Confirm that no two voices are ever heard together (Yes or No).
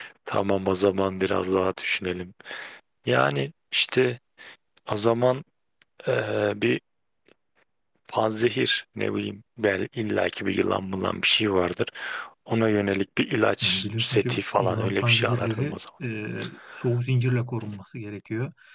No